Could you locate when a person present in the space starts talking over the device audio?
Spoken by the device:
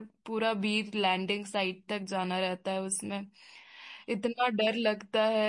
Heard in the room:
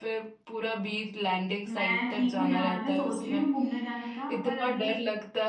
1.7 s

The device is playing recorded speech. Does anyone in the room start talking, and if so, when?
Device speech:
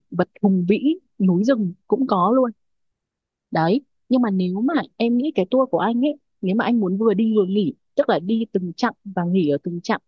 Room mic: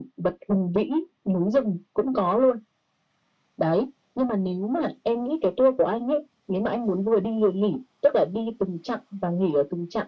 none

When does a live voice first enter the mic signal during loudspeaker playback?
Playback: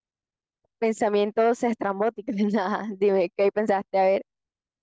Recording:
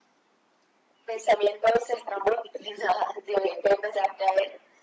none

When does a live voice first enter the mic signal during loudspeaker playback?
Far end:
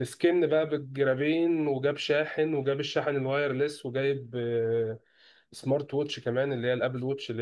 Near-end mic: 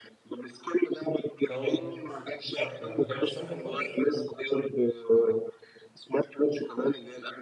1.4 s

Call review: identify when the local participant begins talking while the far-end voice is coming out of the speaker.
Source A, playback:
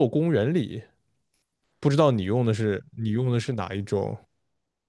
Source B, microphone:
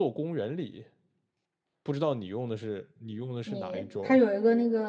3.4 s

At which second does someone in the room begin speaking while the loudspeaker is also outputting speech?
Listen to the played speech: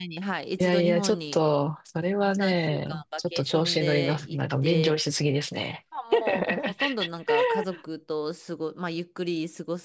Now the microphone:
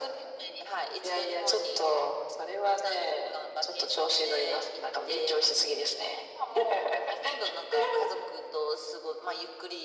none

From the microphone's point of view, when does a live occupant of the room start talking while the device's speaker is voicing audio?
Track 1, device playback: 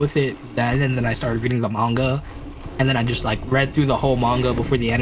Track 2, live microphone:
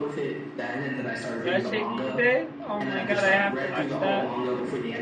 1.4 s

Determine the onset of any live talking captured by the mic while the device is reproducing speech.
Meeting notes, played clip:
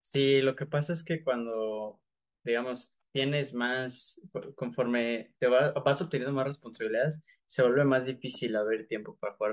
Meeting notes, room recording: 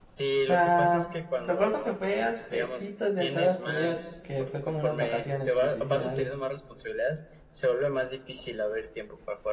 0.5 s

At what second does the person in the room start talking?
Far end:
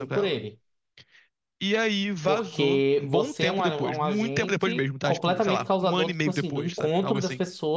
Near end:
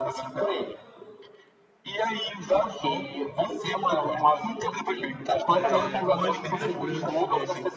5.5 s

